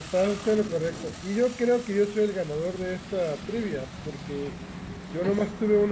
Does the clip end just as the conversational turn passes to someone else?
No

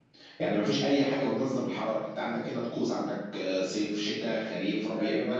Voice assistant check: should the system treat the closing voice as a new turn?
Yes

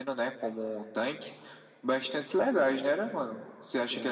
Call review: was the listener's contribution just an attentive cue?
No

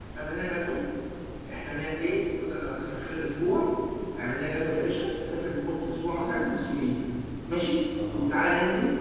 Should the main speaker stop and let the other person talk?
No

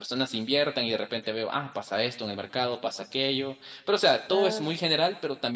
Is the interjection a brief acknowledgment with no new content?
Yes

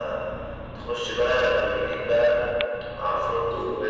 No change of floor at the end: Yes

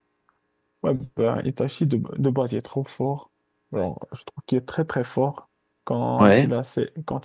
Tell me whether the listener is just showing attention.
Yes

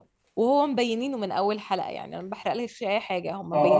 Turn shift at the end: Yes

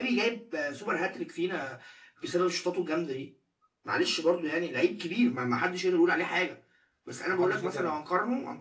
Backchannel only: Yes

